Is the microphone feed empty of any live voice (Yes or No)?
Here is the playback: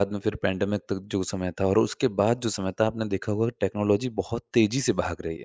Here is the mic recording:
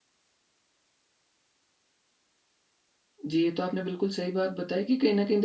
No